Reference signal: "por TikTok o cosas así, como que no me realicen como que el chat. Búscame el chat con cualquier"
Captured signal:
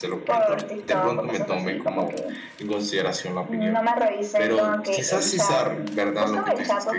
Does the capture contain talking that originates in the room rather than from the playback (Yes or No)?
Yes